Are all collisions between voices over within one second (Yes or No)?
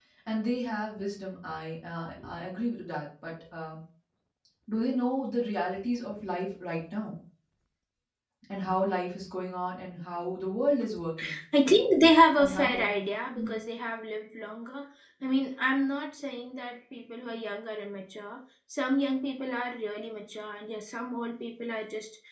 Yes